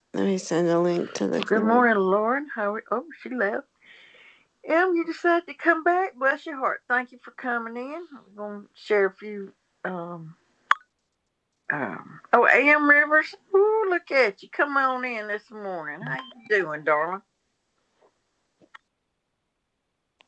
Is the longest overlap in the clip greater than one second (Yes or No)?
No